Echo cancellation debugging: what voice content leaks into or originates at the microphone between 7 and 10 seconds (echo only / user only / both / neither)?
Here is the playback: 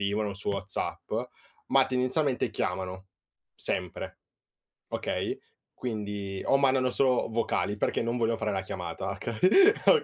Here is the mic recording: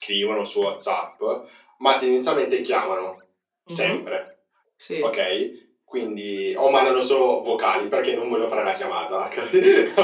echo only